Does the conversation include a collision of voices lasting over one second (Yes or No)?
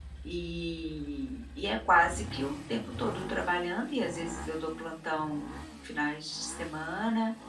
No